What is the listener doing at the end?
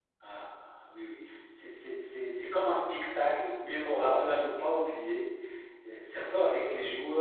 listening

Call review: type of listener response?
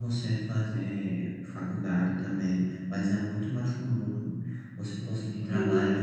listening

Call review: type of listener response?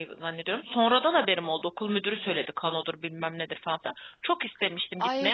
taking over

